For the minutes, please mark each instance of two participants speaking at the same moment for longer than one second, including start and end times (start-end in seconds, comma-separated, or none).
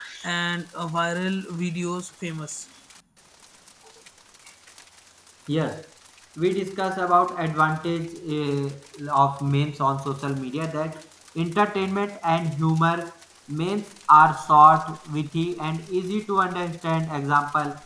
none